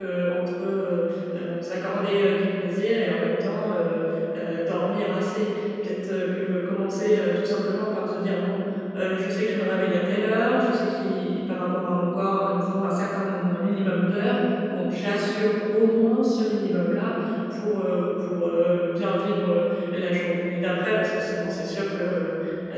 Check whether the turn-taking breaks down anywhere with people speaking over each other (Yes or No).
No